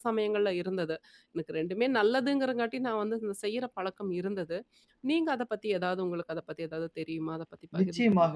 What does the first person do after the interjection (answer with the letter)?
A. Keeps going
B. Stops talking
B